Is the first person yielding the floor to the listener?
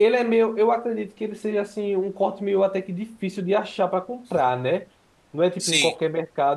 No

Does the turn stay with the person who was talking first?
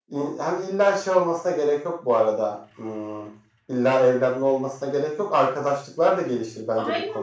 No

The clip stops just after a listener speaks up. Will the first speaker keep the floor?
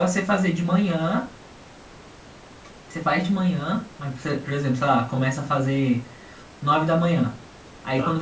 Yes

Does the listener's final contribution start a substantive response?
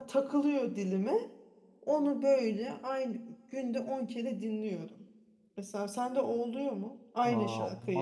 Yes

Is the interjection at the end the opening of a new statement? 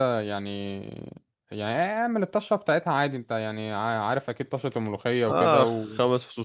Yes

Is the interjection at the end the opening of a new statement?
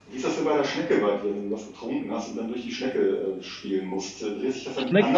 No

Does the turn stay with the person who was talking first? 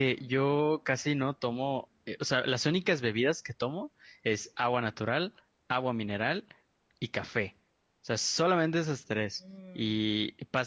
Yes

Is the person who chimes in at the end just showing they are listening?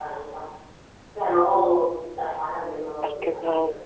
Yes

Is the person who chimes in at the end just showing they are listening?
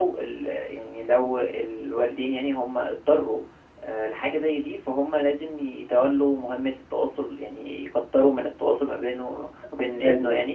Yes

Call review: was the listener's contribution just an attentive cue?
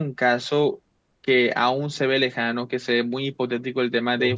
Yes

